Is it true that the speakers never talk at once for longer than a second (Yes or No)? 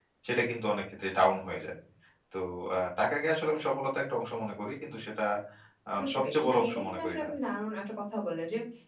No